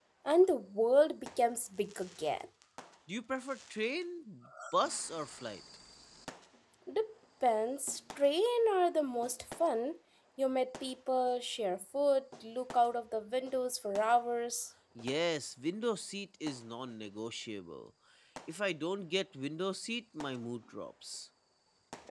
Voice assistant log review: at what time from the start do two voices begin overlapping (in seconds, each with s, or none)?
none